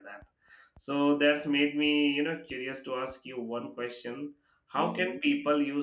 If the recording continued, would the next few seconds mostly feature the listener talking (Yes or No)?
No